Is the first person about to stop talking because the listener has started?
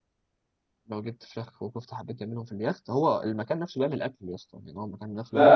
Yes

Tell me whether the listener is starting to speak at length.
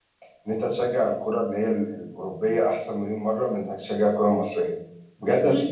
Yes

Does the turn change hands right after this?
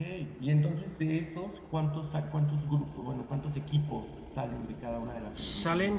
Yes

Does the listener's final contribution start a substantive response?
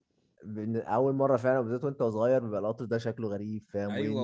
Yes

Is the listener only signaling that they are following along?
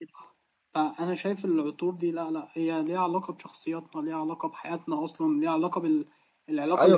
No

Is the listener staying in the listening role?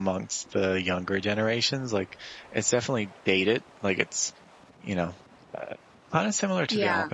Yes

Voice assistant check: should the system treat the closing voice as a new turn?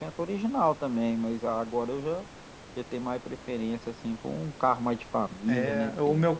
Yes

